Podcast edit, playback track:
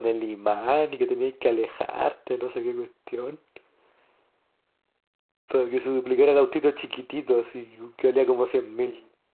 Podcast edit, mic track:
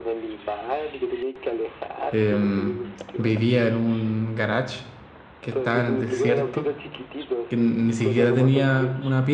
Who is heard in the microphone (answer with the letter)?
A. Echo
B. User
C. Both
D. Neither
C